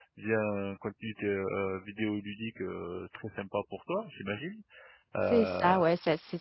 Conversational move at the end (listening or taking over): taking over